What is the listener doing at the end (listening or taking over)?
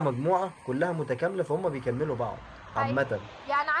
taking over